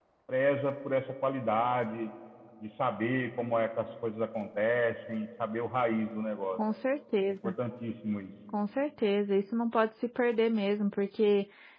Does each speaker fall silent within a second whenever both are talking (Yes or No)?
Yes